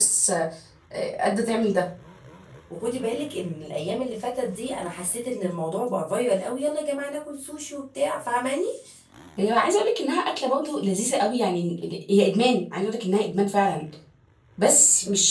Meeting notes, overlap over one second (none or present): none